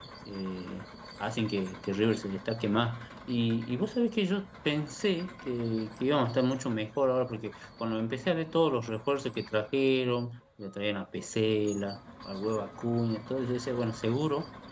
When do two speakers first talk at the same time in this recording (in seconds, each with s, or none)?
none